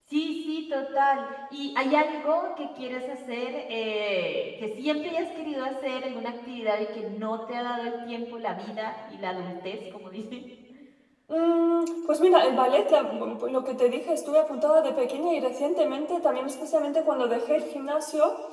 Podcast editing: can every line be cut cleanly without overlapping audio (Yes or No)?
Yes